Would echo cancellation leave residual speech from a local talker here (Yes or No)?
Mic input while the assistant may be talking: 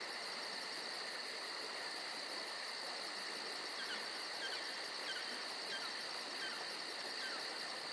No